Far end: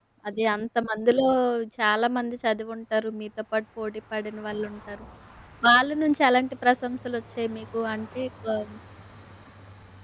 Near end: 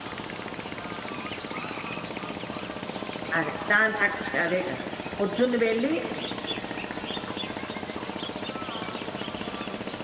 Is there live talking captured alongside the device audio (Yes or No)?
Yes